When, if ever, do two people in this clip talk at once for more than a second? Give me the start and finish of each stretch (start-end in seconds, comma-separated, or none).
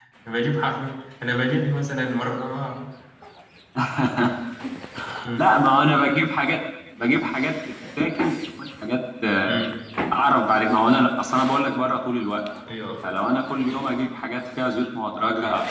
none